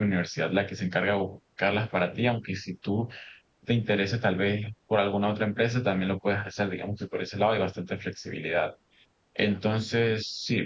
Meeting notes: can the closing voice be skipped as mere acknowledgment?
Yes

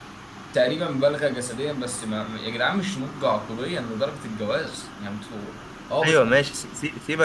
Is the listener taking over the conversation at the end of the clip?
Yes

